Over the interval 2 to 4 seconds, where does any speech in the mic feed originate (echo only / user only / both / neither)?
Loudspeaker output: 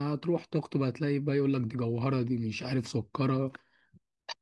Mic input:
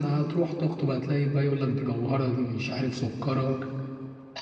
echo only